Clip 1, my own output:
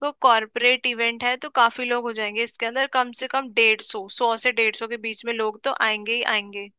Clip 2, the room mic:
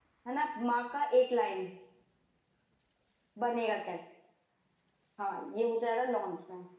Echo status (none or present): none